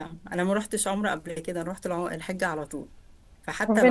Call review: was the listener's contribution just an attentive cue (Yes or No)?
No